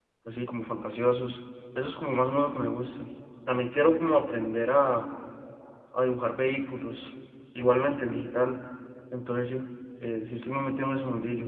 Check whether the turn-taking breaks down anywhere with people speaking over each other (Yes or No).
No